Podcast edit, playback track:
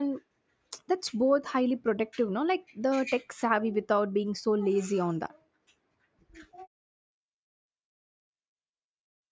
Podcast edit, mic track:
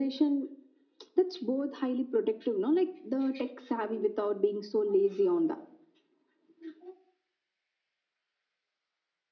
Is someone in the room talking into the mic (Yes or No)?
No